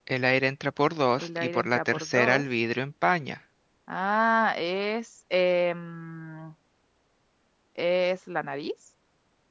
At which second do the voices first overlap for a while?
1.2 s

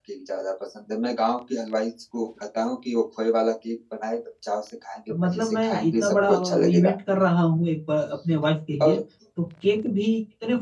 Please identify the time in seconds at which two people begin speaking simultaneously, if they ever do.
5.1 s

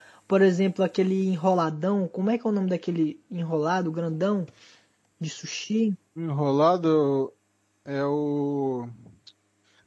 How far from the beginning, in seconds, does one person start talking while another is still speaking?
none

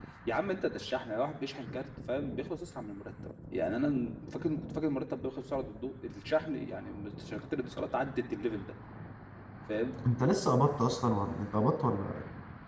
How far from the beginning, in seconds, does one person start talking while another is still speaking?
none

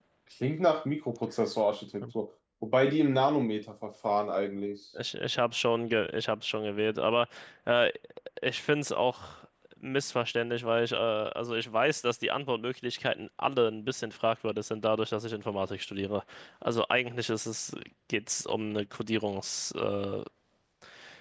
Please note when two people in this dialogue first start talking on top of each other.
none

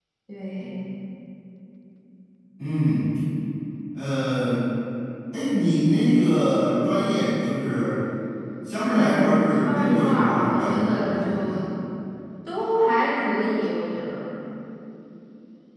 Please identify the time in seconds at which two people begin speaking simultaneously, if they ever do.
8.8 s

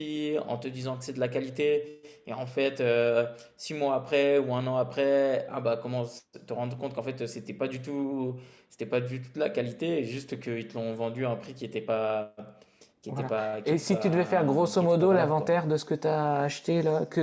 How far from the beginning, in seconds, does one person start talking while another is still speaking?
13.1 s

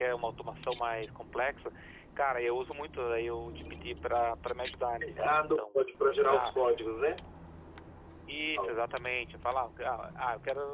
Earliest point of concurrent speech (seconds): 5.0 s

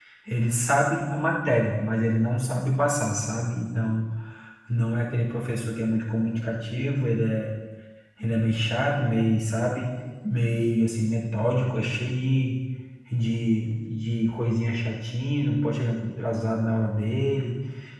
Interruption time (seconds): none

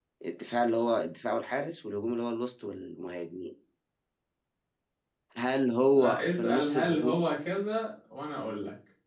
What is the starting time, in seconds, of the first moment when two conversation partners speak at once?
6.0 s

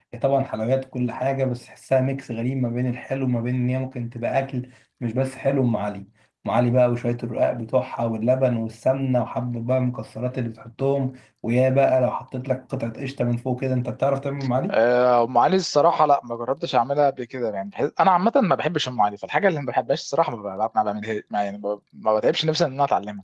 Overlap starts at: none

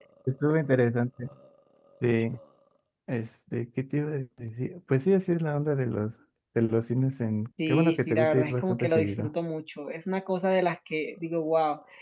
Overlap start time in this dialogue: 7.6 s

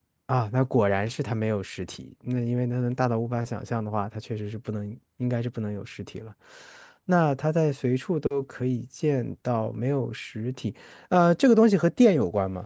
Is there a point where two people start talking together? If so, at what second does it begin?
none

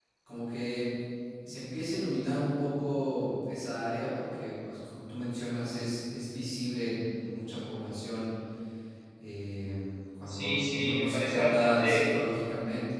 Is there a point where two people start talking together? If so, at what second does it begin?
10.3 s

